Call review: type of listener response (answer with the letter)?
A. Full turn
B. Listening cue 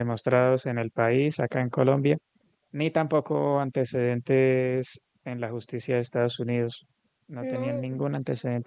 B